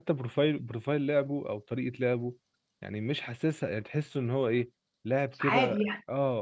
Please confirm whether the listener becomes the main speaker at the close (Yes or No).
No